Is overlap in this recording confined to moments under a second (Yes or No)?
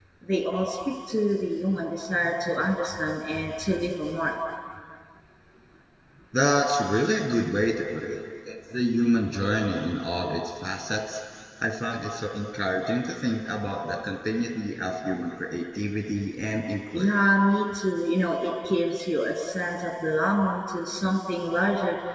Yes